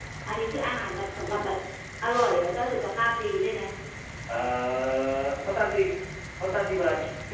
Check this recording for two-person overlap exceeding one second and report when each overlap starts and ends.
none

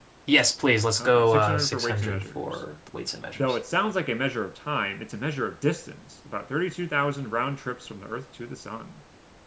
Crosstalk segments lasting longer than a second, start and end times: 1.0-2.6

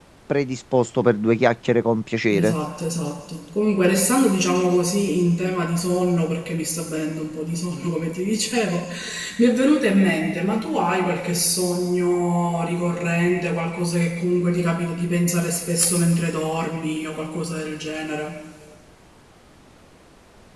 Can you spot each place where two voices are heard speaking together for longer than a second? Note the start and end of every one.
none

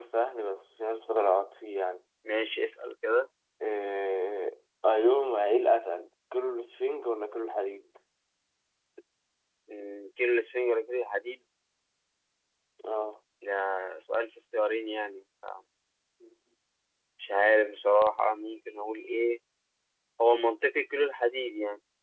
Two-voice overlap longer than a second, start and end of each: none

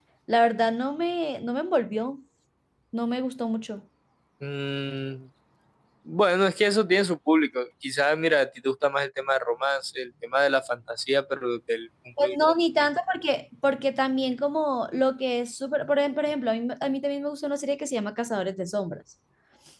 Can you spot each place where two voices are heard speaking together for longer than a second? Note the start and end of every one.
none

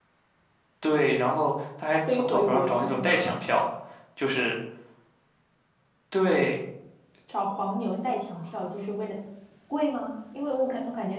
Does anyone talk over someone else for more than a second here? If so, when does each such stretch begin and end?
2.1-3.5

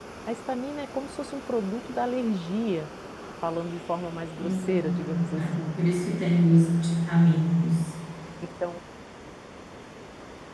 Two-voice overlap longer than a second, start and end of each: 4.4-5.8

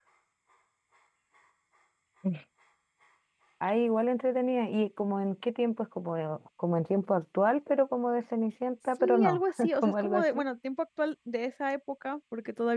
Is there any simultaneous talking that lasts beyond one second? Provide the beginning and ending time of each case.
9.0-10.4

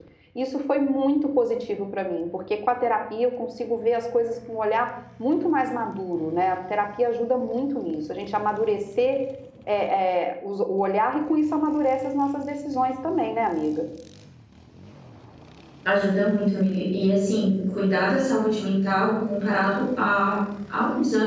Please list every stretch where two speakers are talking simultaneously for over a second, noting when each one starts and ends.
none

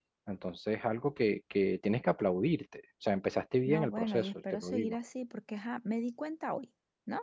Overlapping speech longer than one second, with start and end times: 3.7-5.0

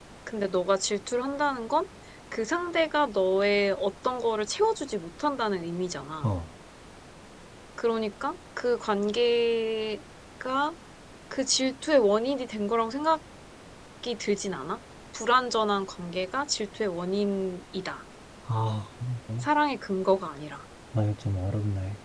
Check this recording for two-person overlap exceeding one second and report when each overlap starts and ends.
none

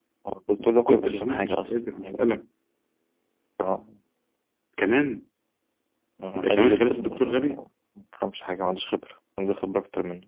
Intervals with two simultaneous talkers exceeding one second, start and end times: 0.9-2.1, 6.3-7.6

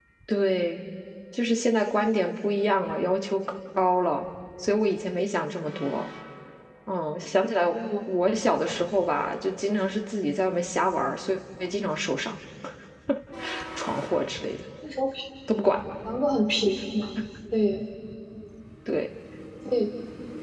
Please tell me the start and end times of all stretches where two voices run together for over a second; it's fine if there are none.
none

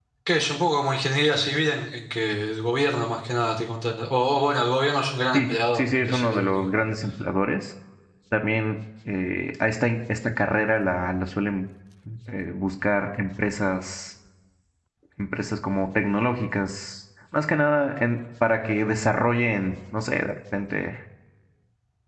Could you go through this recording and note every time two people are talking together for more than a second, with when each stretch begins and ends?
5.3-6.7

